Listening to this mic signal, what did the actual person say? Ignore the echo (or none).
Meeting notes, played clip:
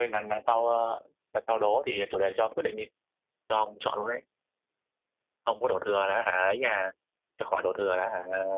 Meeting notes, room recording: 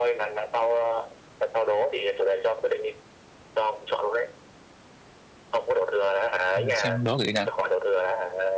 Để xem đố cái gì nhỉ